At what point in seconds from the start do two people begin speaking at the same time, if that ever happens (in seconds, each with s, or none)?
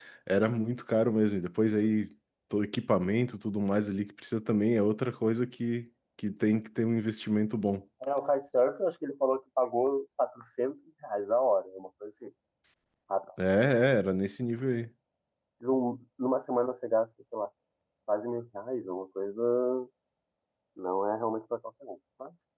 none